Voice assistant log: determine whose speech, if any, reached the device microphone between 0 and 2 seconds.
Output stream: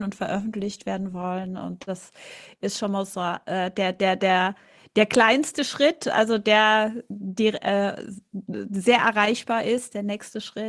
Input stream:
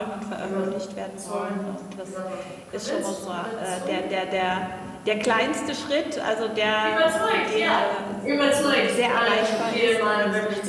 both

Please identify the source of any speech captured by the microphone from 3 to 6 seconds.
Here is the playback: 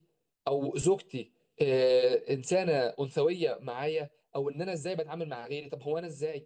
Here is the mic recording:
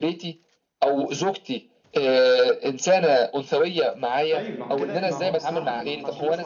both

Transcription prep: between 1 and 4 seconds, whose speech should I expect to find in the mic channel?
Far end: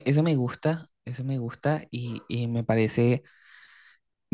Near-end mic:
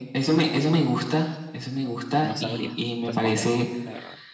both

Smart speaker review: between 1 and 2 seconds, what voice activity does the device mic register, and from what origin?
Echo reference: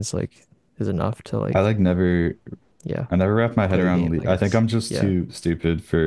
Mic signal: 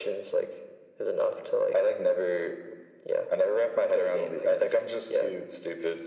echo only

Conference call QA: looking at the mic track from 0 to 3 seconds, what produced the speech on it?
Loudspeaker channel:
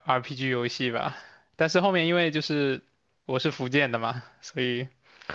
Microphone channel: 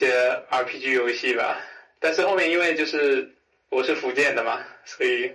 echo only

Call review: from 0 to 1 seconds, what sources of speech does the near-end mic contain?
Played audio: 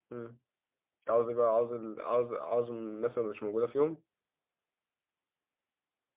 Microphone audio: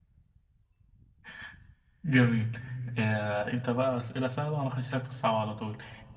neither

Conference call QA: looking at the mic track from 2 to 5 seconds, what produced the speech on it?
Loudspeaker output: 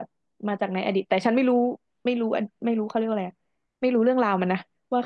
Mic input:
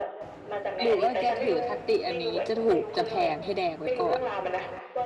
both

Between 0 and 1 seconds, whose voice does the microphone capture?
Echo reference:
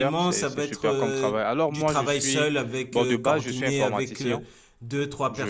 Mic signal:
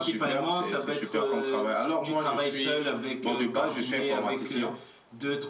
echo only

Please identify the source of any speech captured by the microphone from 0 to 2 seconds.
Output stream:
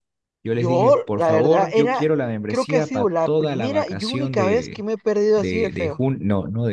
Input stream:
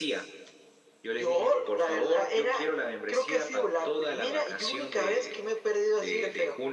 echo only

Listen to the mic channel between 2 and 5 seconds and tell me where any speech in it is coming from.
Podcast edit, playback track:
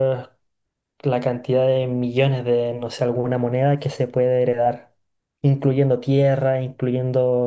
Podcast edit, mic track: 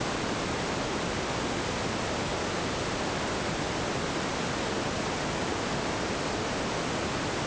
neither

